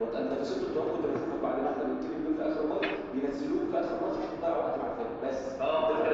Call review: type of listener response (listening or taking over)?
taking over